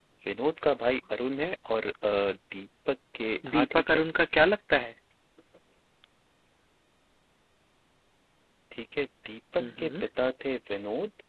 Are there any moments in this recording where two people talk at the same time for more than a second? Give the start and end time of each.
none

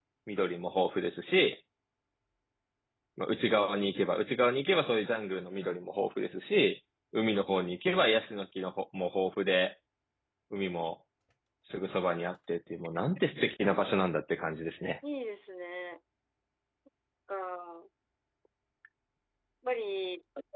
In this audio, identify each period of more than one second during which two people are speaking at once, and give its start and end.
none

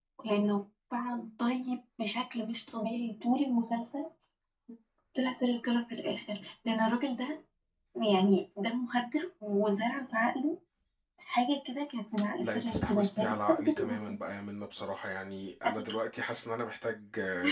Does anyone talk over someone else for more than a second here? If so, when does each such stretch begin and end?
12.4-14.2

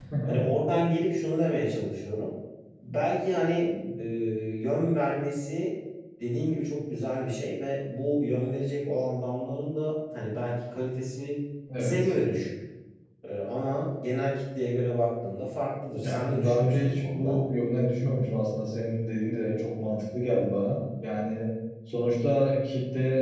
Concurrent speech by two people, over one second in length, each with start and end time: 16.0-17.4

